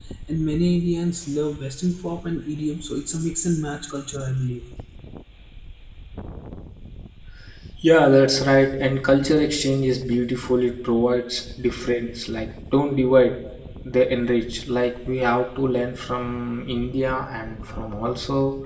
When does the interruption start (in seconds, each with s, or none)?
none